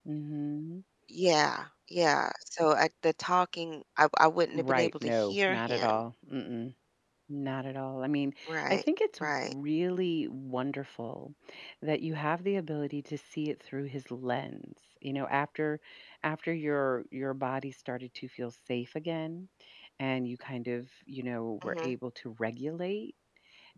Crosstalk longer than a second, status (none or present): present